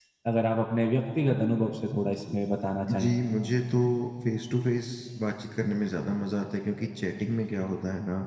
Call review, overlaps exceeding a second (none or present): none